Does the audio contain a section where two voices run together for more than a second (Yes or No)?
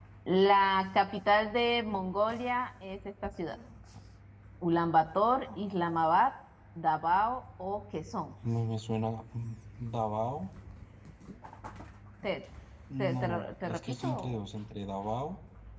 Yes